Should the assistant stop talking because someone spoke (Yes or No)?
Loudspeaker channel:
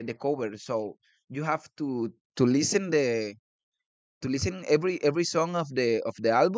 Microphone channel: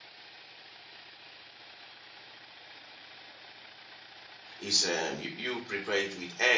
Yes